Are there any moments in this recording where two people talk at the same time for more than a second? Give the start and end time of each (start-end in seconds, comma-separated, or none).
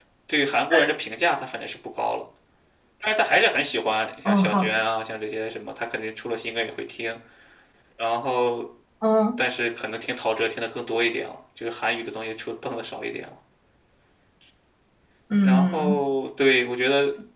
none